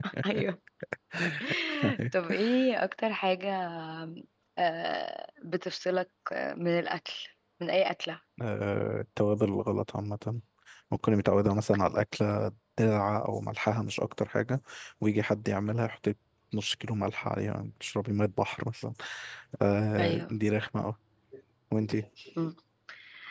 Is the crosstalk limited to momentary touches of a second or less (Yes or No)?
Yes